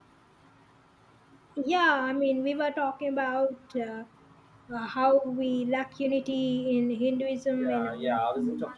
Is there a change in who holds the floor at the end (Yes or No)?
Yes